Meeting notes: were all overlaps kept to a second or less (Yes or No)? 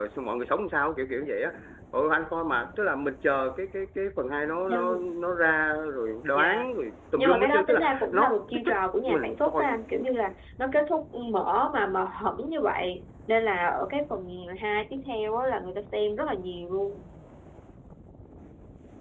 No